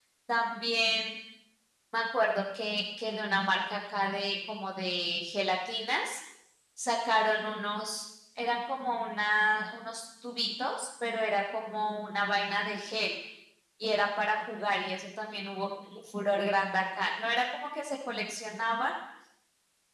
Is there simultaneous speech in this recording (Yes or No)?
No